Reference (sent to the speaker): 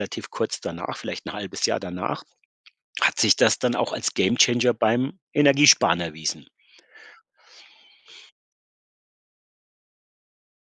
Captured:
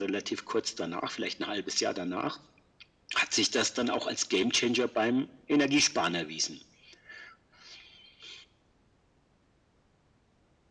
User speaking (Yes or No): No